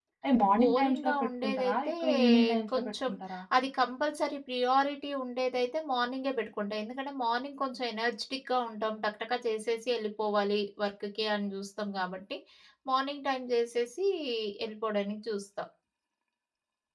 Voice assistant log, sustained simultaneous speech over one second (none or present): present